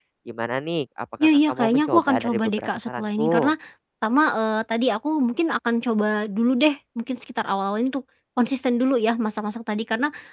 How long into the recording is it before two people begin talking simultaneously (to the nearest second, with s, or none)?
1 s